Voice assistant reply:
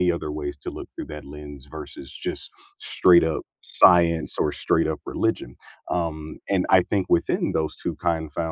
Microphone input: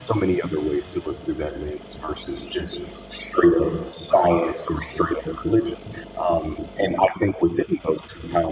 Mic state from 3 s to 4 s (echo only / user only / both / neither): echo only